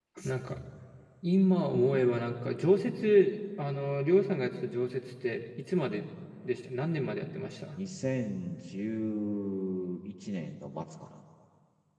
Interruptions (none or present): none